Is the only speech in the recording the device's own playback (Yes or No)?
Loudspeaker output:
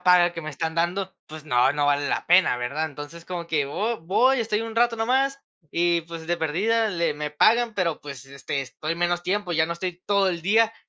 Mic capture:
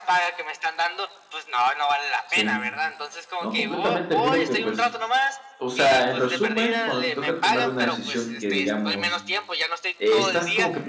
No